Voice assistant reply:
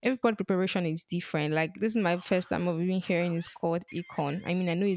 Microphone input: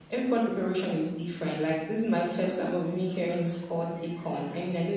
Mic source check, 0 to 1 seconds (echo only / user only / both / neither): echo only